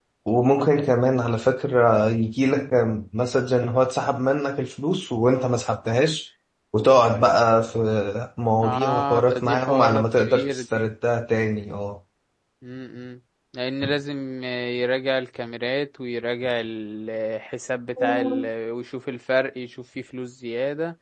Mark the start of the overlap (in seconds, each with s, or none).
8.6 s